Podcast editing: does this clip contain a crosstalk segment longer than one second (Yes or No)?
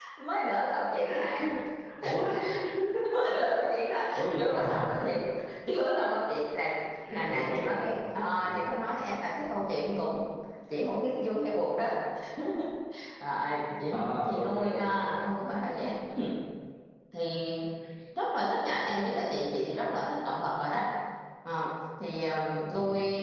Yes